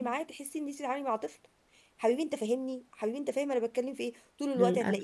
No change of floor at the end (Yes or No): Yes